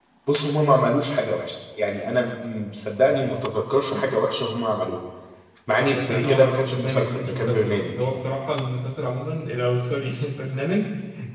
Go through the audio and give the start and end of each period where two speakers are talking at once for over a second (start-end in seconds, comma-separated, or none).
5.8-7.9